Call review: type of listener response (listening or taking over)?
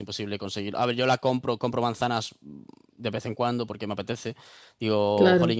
listening